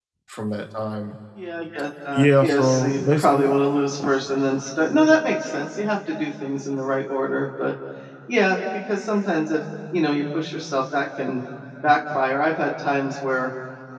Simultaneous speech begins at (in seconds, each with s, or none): 2.1 s